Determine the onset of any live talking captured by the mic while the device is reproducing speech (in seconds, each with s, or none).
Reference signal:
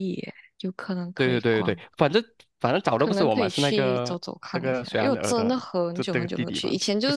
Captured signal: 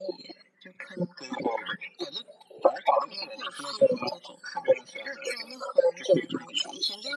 none